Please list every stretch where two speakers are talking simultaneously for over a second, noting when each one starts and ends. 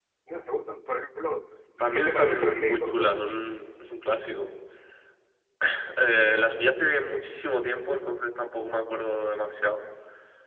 1.9-3.4

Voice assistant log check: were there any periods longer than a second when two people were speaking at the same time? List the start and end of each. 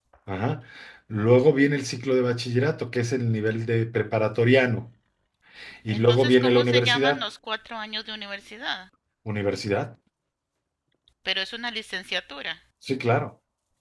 5.9-7.2

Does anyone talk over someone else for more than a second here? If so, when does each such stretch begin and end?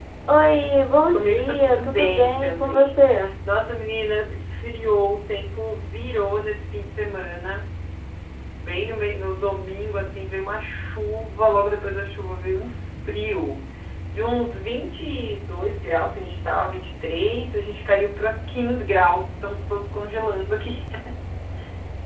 1.1-3.0

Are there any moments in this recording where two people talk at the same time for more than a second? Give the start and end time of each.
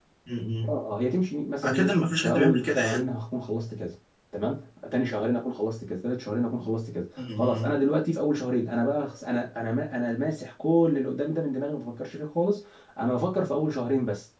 1.6-3.0

